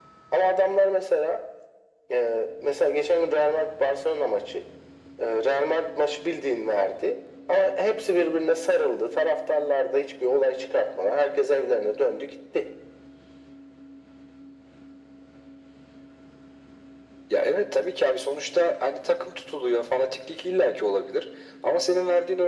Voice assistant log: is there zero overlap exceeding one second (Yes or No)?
Yes